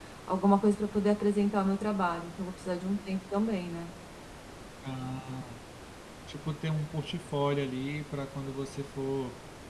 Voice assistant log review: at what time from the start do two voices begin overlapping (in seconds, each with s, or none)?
none